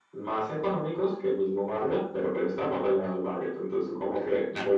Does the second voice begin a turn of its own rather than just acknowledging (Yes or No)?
Yes